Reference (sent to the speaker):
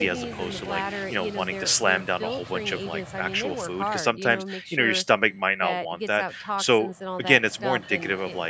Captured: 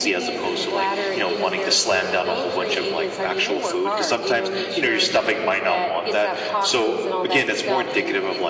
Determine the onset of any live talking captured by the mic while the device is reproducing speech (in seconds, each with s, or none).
none